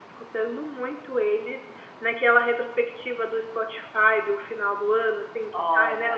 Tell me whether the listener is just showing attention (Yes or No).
Yes